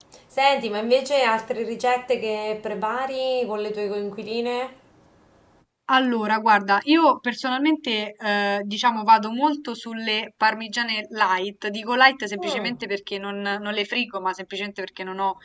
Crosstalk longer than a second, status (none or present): none